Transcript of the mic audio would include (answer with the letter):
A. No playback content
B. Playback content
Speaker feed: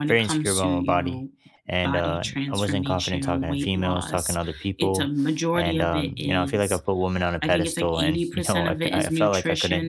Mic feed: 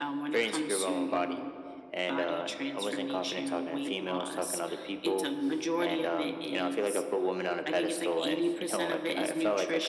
B